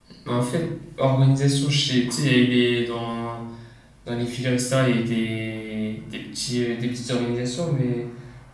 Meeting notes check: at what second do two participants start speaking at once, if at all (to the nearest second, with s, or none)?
none